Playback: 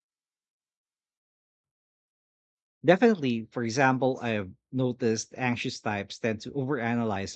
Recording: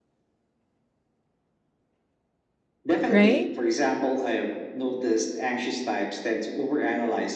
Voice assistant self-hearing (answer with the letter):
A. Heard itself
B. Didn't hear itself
A